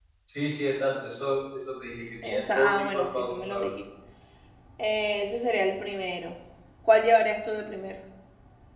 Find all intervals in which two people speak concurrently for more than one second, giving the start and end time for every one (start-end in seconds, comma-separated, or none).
2.2-3.7